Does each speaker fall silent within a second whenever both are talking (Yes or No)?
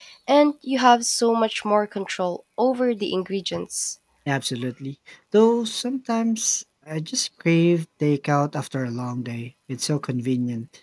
Yes